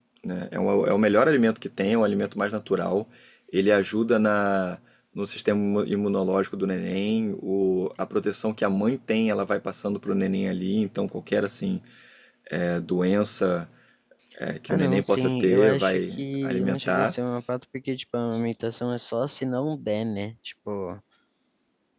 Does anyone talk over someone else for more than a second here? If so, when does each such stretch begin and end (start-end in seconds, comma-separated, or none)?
14.7-17.1